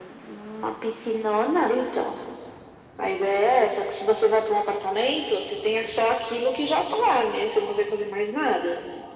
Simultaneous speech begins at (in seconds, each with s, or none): none